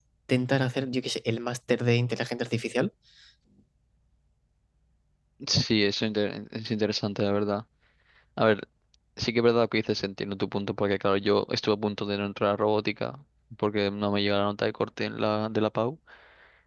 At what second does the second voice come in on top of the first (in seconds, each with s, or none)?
none